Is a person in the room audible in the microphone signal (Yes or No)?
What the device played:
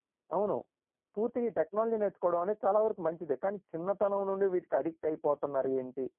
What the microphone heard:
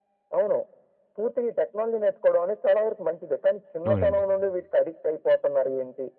Yes